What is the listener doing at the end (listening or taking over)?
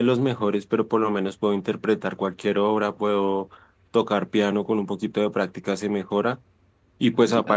listening